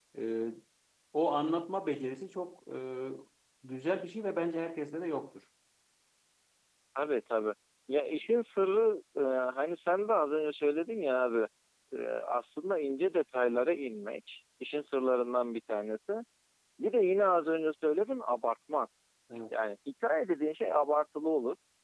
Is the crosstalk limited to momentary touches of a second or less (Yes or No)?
Yes